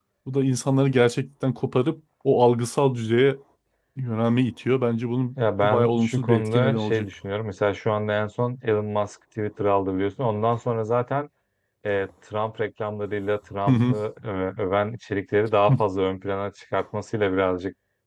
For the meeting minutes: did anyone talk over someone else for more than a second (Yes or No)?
Yes